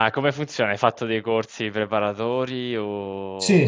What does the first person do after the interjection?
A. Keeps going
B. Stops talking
B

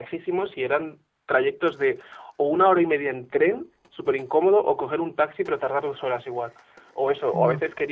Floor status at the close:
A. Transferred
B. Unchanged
B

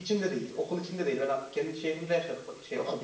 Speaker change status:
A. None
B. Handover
B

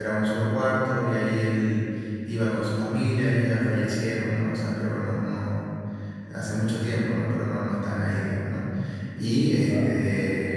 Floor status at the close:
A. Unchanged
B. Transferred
A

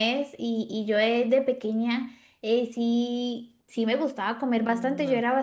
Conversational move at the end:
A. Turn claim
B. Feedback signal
B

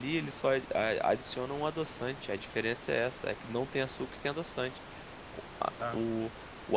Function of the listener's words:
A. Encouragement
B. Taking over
A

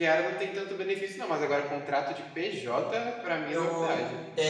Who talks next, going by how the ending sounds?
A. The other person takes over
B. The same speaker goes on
A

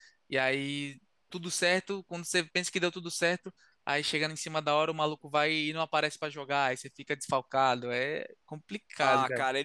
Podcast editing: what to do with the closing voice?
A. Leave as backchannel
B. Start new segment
B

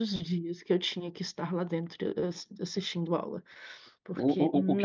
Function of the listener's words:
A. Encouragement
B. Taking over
B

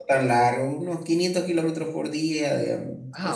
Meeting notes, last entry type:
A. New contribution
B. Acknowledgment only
A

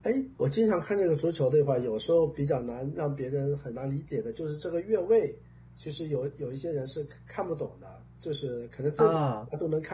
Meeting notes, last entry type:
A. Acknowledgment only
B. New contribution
A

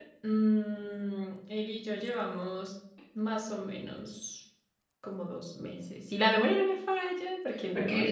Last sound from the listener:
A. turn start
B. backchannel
A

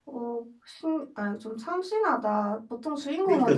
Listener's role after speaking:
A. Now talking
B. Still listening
A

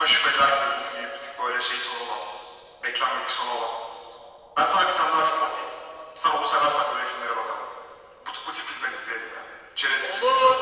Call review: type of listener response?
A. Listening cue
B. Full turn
B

